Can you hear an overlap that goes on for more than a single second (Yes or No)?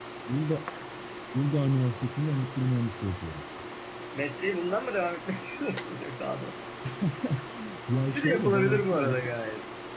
Yes